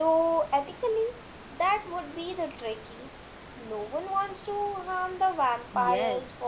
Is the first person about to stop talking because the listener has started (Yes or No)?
Yes